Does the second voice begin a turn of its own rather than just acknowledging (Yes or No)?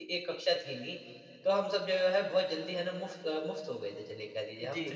No